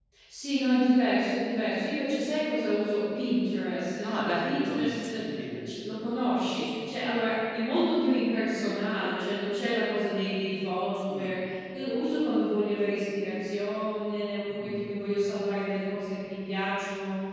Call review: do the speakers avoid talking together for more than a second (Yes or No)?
No